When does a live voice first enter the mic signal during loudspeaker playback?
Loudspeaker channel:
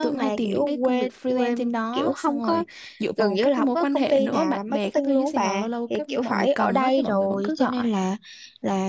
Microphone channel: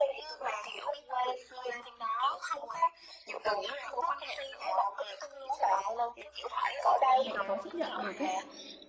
7.1 s

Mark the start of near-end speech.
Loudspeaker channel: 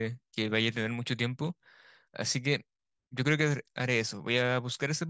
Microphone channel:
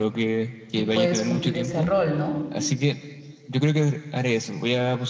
0.7 s

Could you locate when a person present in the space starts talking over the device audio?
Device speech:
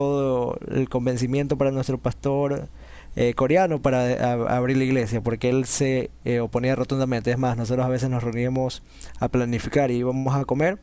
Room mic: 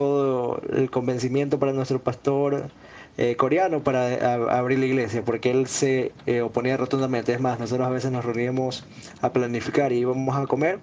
none

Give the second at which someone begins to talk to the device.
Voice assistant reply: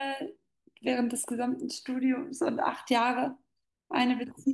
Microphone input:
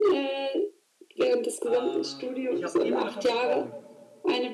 1.6 s

